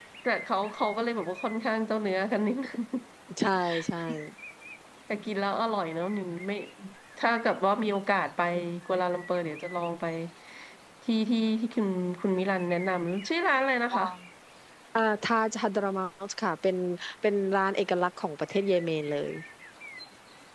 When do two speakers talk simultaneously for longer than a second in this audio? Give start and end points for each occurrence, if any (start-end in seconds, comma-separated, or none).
none